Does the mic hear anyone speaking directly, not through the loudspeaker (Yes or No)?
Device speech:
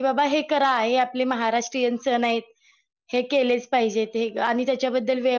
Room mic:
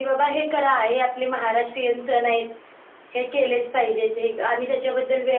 No